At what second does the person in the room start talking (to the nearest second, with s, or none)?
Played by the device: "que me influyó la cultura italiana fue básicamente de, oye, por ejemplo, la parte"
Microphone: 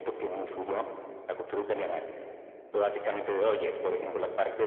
none